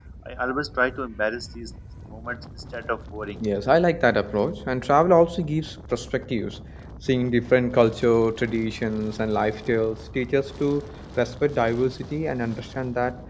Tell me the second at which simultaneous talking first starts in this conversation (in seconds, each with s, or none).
none